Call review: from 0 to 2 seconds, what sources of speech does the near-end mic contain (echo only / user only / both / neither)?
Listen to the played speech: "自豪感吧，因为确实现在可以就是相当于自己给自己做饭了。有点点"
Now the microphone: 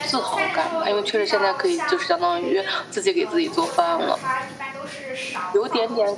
both